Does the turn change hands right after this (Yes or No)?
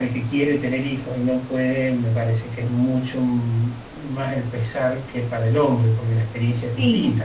Yes